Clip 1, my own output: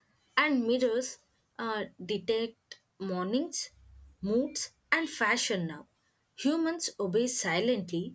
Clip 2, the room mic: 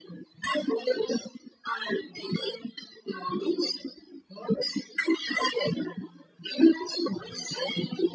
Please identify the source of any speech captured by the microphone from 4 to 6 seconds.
echo only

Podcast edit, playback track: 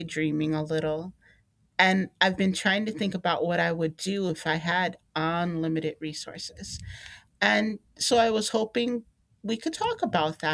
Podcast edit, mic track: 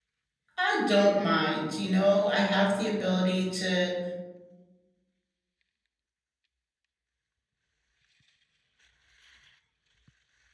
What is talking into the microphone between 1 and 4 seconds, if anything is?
user only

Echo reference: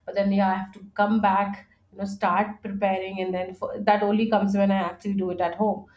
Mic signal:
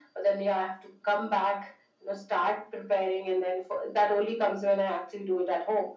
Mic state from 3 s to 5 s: echo only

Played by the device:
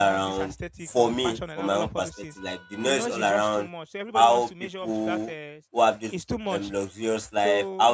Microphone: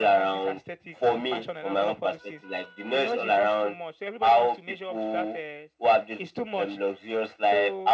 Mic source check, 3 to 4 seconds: echo only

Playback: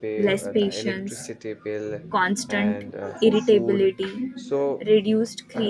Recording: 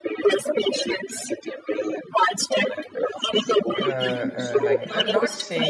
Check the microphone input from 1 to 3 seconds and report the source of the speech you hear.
echo only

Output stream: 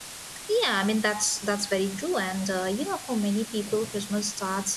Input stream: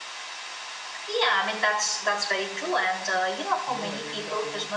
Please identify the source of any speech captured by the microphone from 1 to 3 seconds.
echo only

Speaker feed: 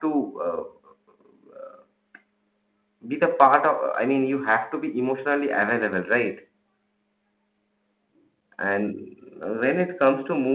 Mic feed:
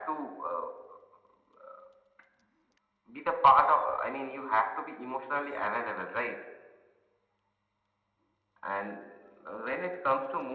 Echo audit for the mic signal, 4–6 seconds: echo only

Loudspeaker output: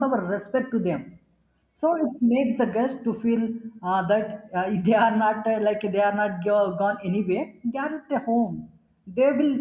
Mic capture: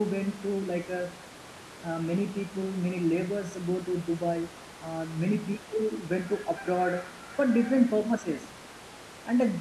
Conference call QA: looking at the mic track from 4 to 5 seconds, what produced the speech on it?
user only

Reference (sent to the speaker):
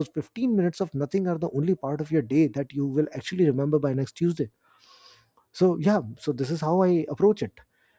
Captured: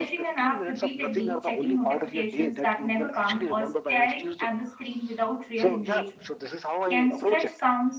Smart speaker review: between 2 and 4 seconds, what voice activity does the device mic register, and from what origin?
both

